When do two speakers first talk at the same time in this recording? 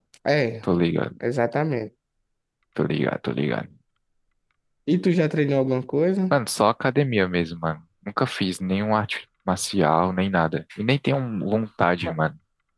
none

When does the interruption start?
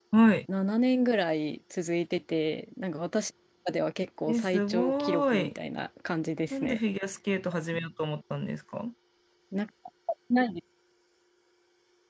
4.3 s

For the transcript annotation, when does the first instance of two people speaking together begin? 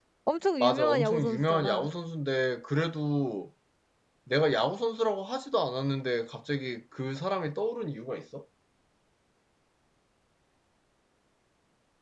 0.6 s

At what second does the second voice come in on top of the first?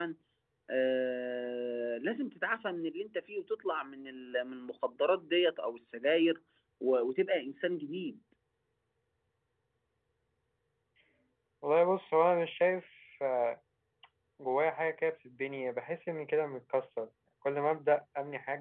none

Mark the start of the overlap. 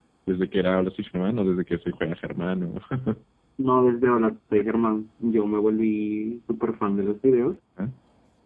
none

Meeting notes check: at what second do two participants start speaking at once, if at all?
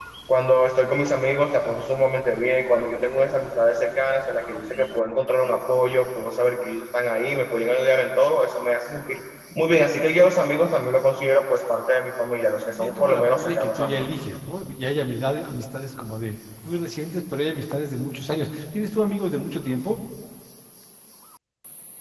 12.8 s

